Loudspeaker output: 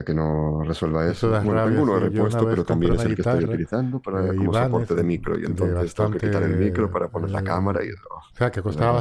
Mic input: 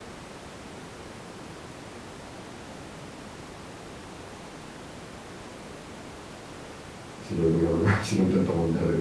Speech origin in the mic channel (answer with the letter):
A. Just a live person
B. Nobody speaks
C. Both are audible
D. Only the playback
A